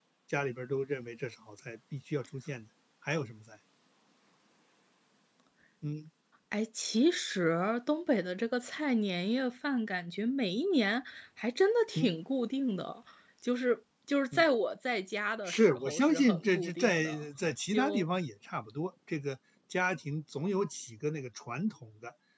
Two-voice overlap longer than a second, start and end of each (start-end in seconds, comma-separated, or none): 15.4-17.2